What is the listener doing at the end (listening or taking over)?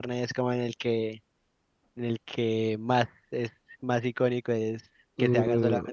taking over